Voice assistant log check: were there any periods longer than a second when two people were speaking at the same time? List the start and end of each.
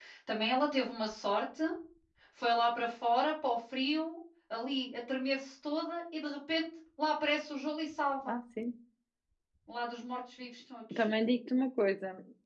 none

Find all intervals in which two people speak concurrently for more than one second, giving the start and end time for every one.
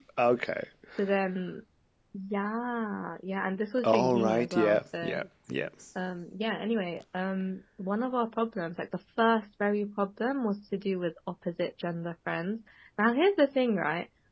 3.8-5.2

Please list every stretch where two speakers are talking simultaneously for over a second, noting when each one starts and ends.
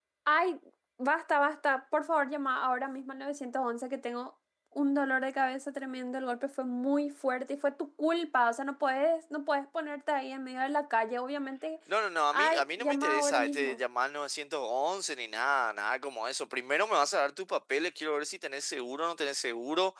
12.3-13.8

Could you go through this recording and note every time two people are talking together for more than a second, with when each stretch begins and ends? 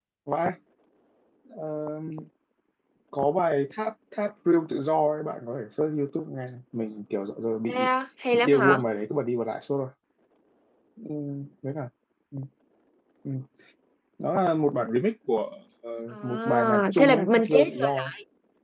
16.1-18.1

